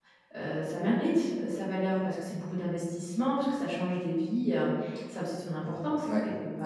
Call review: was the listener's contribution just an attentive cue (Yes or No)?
No